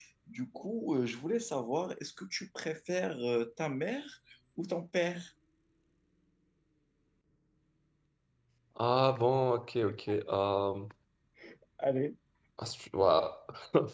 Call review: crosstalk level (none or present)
none